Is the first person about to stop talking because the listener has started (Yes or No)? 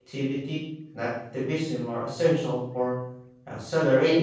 Yes